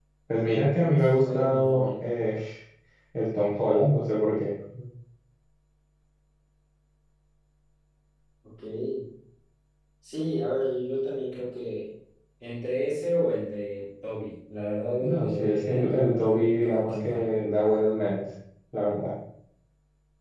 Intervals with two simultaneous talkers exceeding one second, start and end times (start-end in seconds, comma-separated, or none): 0.8-2.1, 15.0-17.3